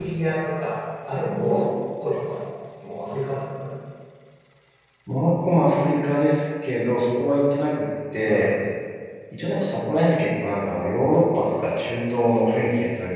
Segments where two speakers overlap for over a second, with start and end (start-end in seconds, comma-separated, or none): none